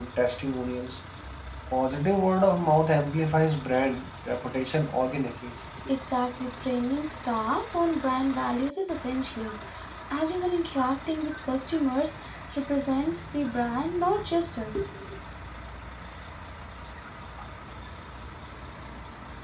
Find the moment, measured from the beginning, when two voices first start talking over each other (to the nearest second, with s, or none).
none